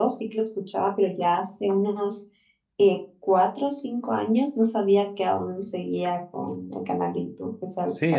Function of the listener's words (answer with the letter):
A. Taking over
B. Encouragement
A